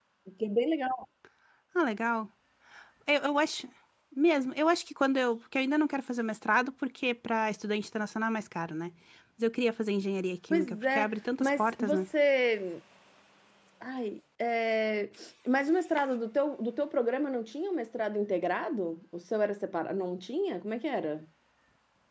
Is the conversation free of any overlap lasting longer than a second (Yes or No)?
No